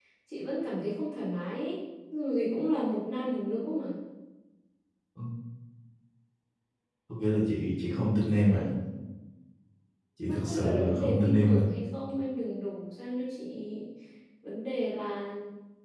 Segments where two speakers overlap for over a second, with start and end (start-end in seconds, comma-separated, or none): 10.3-11.7